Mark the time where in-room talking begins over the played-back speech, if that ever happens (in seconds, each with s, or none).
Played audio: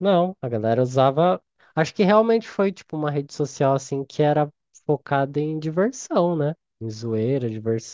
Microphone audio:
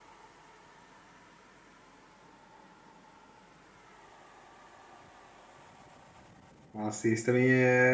6.7 s